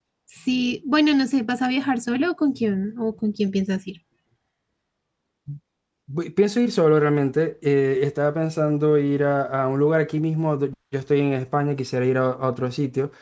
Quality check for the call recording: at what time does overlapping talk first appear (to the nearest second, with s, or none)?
none